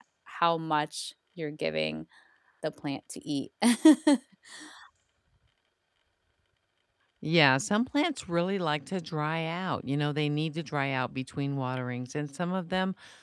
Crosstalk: none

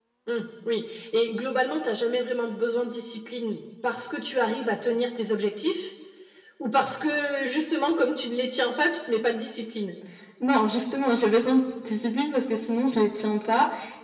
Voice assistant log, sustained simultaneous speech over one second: none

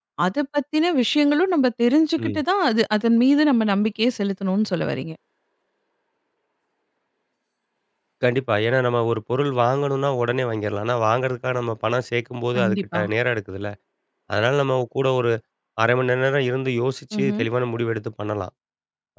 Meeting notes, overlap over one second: none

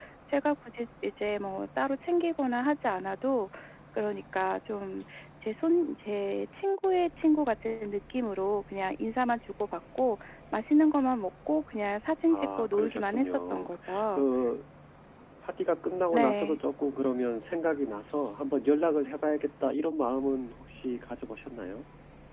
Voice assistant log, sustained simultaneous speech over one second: present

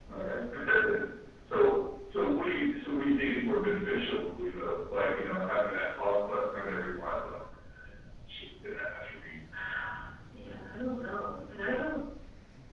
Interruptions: none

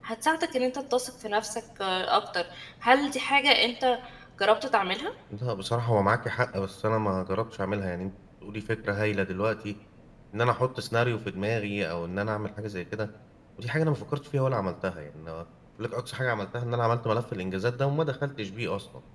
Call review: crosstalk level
none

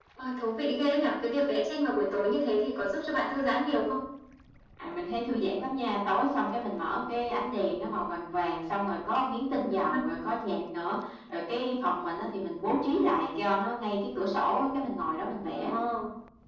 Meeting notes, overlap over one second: none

